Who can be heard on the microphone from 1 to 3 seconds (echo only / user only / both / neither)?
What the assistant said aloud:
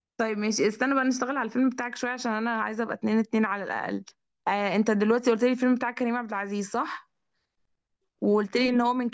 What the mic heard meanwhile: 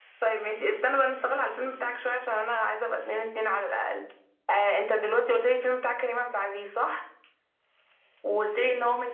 echo only